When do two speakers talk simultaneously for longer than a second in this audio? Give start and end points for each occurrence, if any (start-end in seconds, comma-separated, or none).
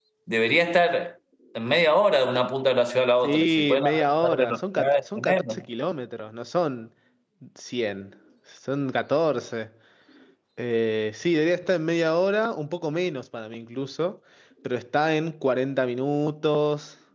3.2-5.6